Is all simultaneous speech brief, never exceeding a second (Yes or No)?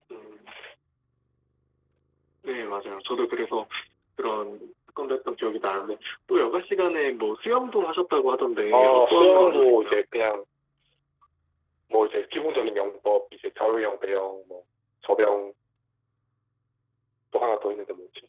No